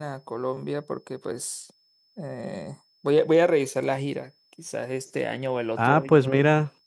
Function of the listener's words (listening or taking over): taking over